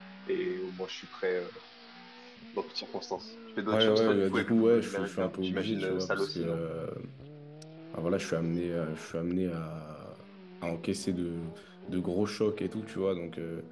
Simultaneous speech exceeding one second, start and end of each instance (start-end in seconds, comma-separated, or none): 3.7-6.6